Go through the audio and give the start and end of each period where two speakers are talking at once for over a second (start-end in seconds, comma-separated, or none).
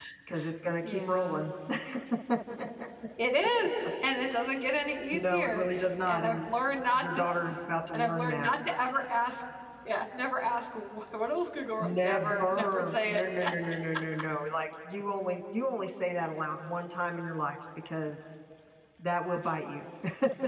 11.8-13.5